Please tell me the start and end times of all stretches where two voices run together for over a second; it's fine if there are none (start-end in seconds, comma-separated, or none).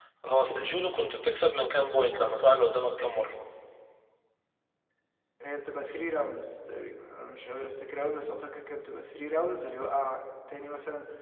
none